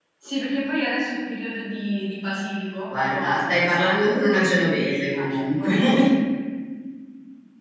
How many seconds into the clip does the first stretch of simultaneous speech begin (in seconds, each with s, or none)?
2.9 s